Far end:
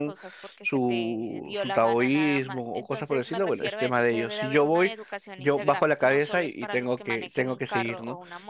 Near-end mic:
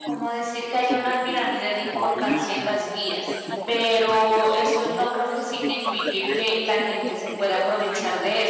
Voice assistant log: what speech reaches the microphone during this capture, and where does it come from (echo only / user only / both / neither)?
both